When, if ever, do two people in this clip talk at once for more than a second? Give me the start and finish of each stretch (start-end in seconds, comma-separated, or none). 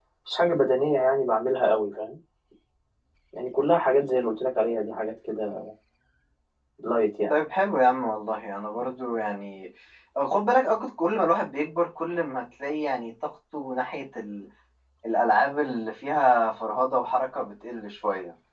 none